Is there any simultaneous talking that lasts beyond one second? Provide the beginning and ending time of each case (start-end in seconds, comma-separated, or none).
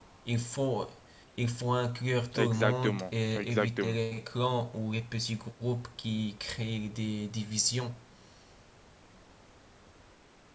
2.4-4.0